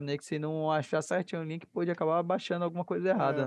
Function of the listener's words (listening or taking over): taking over